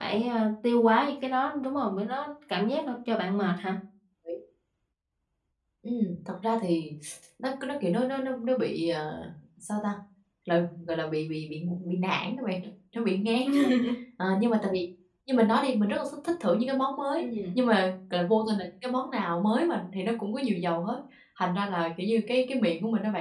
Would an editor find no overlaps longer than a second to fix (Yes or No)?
Yes